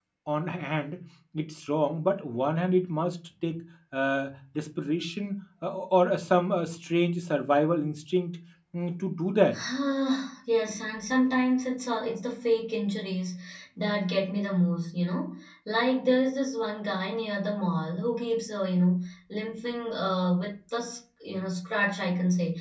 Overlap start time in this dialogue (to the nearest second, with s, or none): none